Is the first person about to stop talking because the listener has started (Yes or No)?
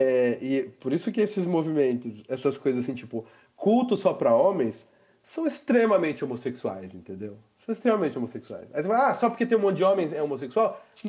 No